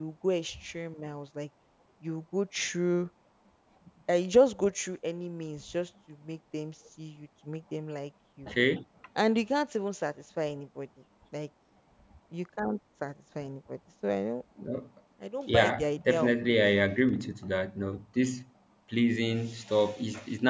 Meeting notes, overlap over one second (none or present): present